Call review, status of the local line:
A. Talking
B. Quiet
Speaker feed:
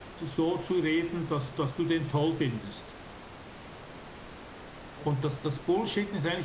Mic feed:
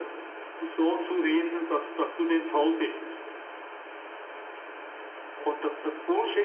B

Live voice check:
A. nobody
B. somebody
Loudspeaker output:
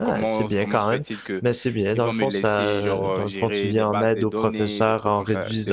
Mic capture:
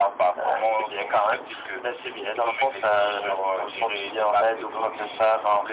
A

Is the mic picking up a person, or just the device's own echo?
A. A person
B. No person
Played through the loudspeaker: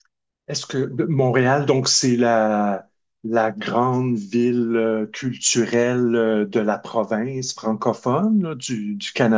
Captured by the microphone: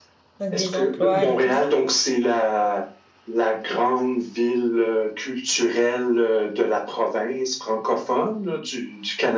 A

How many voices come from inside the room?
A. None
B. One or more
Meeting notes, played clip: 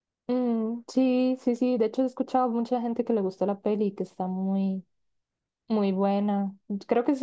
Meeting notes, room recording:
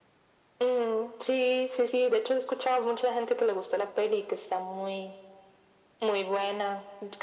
A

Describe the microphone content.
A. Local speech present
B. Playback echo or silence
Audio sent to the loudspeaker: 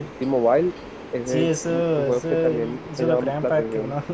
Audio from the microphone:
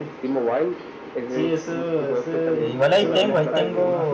A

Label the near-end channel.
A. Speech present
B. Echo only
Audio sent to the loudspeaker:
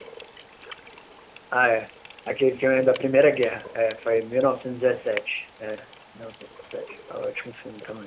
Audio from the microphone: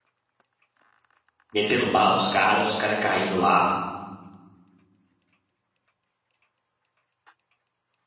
A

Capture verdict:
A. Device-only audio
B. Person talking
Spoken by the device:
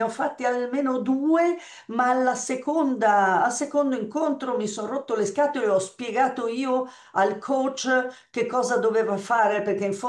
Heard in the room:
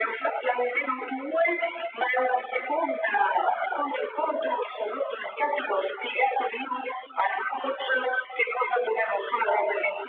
A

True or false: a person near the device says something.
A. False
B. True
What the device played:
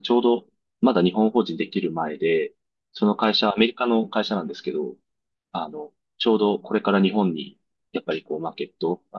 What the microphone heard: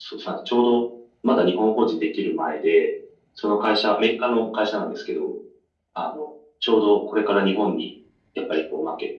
A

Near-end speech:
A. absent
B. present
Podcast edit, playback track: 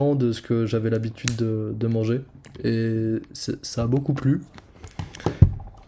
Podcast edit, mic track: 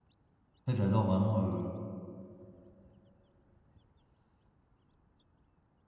B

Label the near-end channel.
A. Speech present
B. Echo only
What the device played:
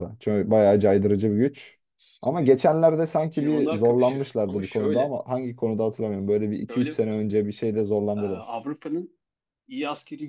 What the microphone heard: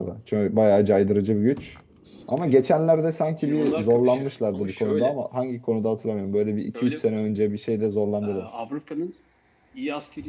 B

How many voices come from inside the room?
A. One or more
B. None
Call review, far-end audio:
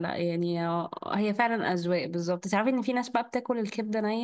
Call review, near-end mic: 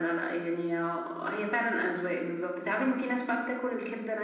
B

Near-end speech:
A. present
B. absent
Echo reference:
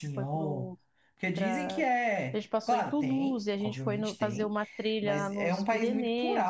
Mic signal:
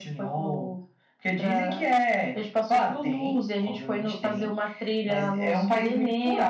B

